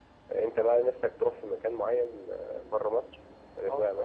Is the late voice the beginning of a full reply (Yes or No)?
Yes